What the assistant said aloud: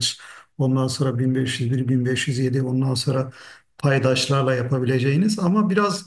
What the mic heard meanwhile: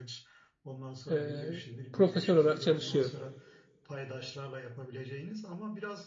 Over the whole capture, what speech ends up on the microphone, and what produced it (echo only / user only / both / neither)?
both